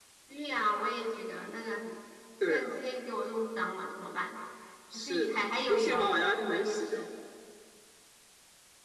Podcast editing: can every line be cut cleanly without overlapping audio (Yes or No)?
No